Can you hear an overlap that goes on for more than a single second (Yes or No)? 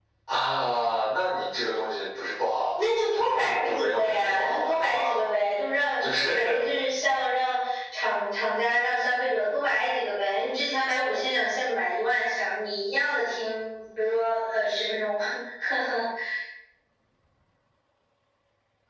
Yes